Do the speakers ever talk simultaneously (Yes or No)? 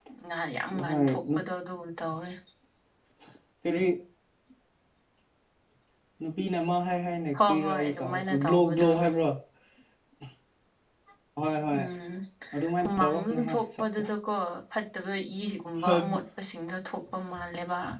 Yes